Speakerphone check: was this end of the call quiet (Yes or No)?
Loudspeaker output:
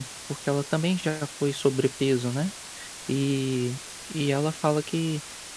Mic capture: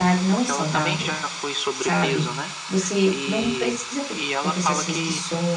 No